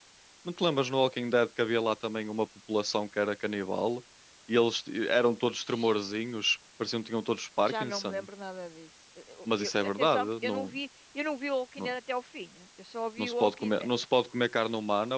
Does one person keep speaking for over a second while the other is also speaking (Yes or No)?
Yes